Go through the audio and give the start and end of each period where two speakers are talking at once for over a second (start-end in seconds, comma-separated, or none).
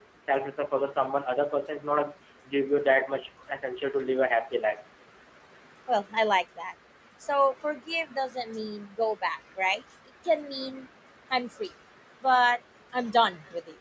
none